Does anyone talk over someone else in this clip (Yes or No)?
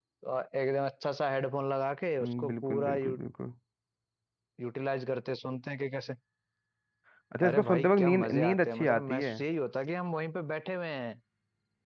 Yes